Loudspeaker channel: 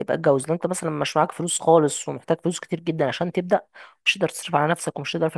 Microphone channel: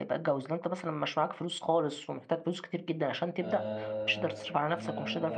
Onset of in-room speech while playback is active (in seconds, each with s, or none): 3.4 s